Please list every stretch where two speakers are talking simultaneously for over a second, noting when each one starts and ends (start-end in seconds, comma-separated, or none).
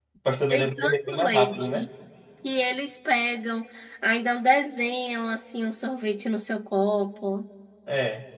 0.5-1.9